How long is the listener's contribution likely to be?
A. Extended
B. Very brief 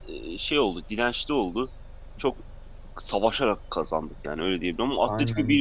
B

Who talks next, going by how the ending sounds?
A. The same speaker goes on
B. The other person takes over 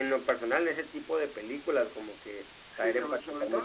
B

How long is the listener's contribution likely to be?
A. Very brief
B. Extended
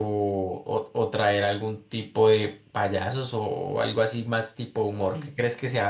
A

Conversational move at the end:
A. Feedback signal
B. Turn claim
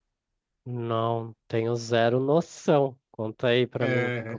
B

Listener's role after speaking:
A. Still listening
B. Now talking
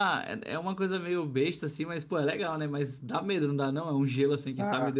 B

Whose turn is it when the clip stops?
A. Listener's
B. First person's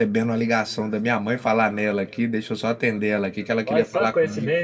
A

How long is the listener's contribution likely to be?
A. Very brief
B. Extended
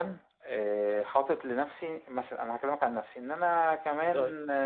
A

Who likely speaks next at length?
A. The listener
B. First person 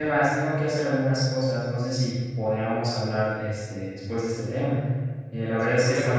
B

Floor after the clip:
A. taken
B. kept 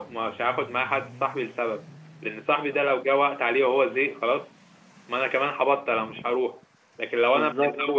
B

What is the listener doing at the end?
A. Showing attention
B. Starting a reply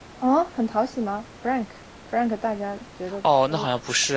B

